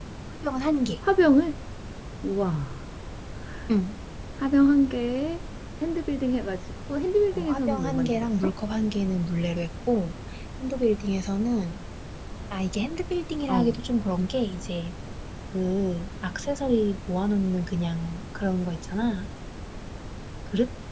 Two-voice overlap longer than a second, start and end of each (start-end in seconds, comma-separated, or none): 7.3-8.5